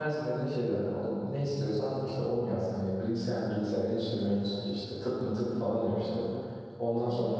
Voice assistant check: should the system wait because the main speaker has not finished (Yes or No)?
Yes